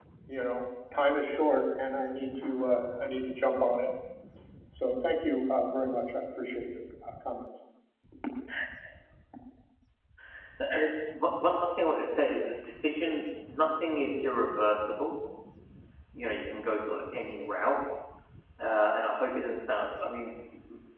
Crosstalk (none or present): none